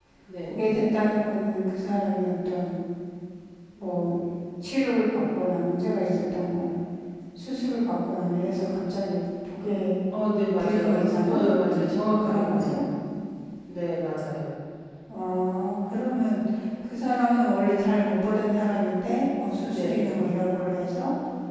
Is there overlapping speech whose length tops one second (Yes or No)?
Yes